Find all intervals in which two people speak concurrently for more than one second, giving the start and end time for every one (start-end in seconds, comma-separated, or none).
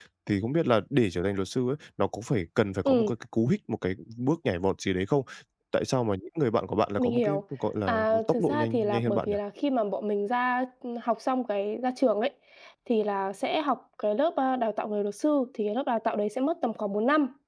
7.9-9.3